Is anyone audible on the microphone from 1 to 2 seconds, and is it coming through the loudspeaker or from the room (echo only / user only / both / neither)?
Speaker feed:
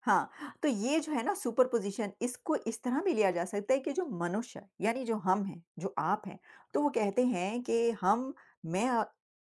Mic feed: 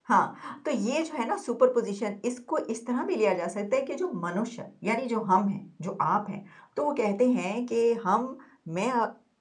echo only